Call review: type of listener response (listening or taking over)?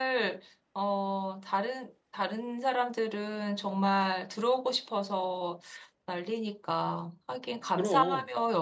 listening